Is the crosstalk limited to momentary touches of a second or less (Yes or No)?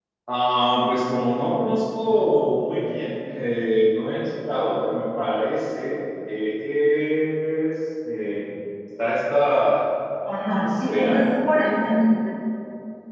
No